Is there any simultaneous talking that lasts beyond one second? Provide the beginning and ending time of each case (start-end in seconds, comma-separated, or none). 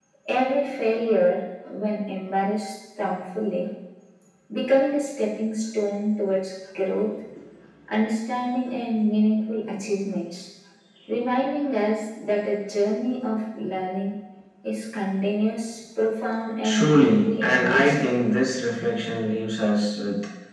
16.6-18.1